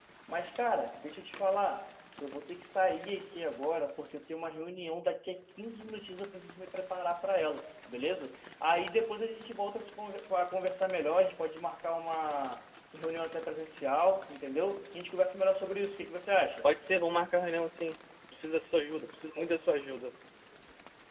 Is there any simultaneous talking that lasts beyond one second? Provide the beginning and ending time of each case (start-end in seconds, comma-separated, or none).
none